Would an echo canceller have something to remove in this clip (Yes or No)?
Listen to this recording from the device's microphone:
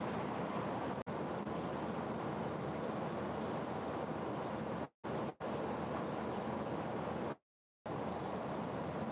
No